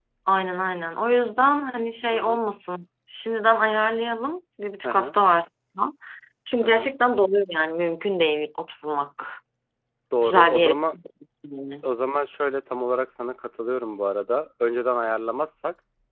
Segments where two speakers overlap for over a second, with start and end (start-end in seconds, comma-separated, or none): none